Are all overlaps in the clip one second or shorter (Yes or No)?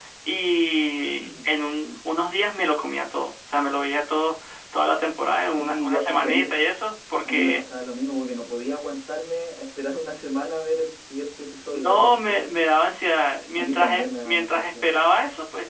No